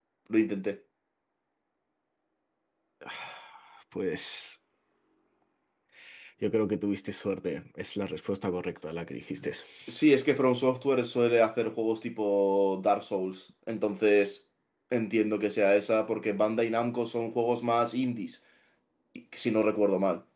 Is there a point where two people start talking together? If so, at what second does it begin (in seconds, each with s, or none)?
none